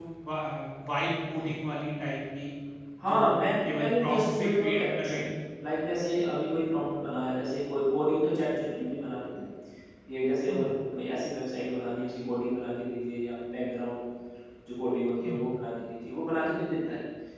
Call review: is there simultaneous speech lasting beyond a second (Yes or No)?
Yes